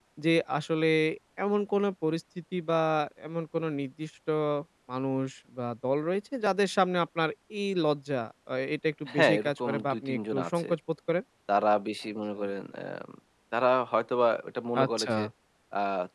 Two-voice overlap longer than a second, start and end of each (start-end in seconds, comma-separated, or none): 9.1-10.7